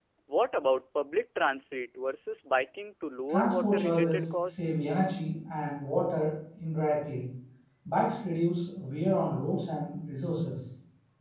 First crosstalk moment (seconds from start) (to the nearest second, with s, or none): 3 s